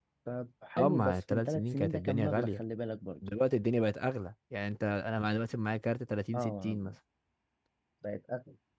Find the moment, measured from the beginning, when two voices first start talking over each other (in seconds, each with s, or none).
0.8 s